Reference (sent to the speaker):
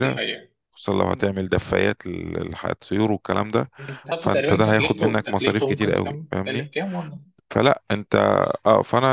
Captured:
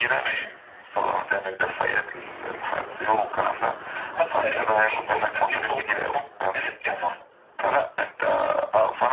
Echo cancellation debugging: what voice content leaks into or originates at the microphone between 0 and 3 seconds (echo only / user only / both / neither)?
echo only